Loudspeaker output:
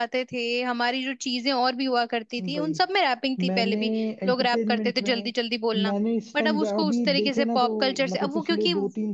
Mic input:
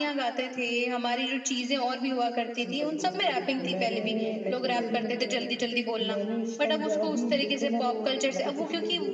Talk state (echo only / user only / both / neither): both